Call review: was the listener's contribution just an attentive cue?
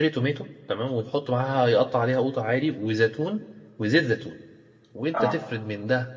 Yes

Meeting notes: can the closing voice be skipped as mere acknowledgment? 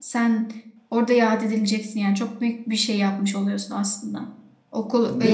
No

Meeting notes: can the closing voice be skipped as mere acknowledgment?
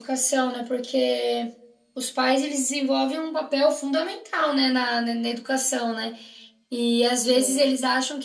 Yes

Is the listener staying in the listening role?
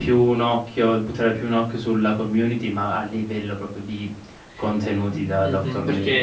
No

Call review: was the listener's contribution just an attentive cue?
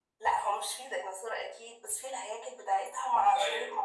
Yes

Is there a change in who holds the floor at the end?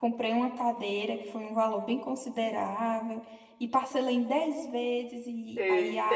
Yes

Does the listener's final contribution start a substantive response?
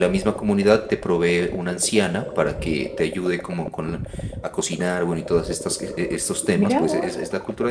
Yes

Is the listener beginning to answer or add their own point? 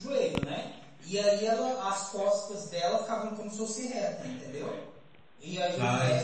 No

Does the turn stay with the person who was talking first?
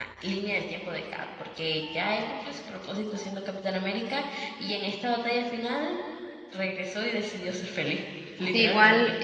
No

